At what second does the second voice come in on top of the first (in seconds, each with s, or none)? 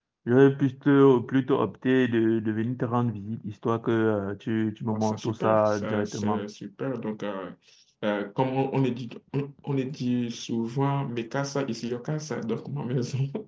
4.8 s